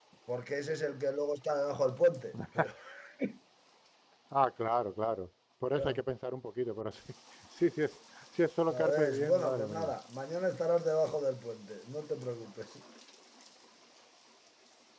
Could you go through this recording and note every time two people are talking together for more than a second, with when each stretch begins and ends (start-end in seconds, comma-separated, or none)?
8.7-9.9